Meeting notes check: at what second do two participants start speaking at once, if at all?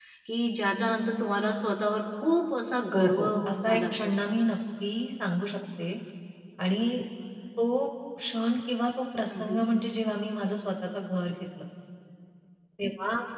2.9 s

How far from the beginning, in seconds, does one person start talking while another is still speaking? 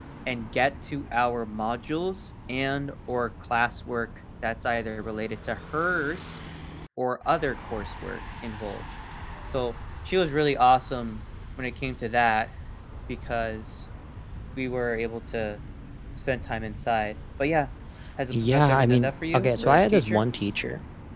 18.3 s

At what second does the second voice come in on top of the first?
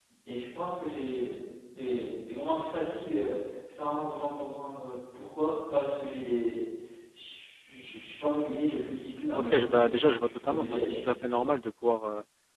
9.4 s

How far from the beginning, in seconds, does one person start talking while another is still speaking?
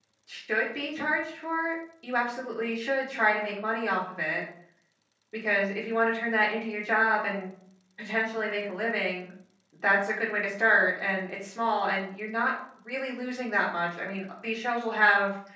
none

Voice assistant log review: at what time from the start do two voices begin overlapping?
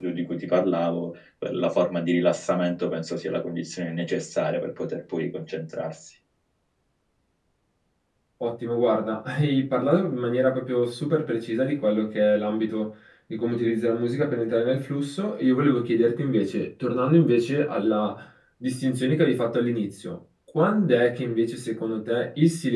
none

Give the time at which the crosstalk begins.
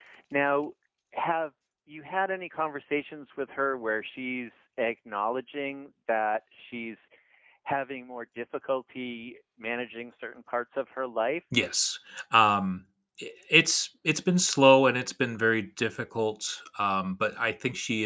none

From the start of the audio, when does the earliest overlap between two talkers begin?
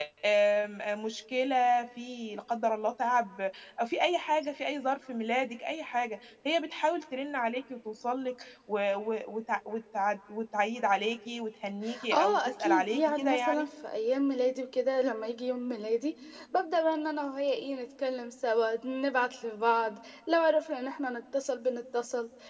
11.9 s

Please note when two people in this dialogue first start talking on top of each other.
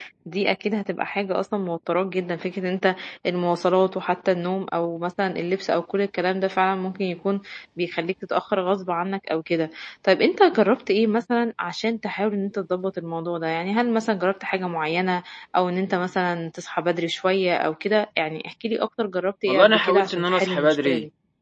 19.5 s

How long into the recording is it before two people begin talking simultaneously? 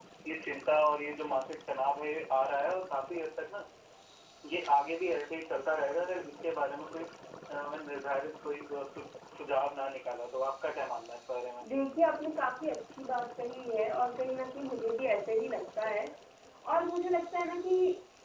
none

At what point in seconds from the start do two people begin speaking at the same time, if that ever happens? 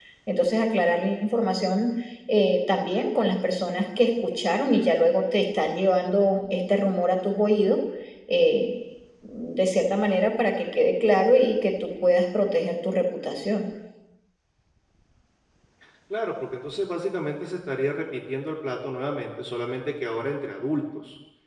none

